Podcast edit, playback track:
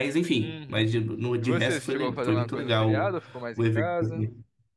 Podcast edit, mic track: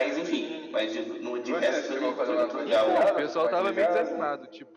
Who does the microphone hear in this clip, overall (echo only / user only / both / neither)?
both